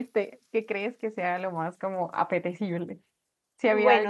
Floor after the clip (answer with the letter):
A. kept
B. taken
B